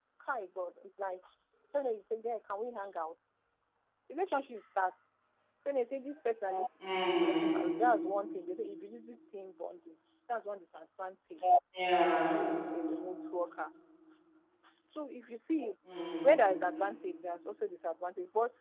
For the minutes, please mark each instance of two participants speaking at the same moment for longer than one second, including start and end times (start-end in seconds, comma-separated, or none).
none